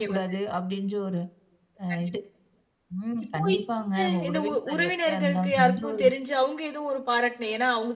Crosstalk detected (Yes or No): Yes